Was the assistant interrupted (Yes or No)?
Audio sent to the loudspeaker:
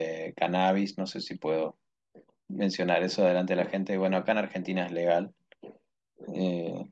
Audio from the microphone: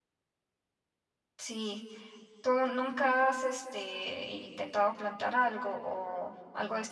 Yes